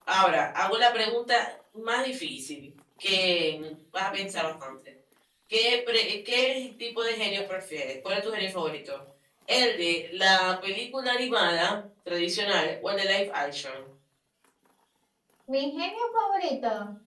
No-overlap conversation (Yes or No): Yes